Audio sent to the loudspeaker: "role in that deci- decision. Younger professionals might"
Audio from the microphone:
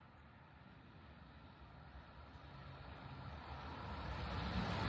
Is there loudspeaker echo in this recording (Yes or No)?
No